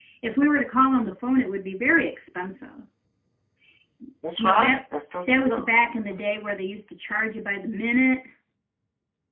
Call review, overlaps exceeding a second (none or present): none